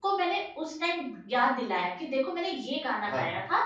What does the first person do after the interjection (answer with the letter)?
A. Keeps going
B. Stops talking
A